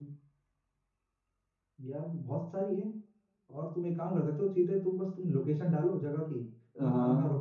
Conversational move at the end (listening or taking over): listening